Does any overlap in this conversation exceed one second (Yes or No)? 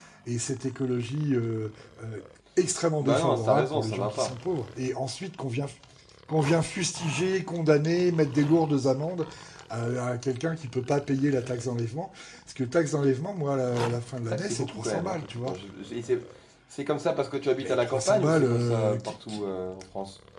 Yes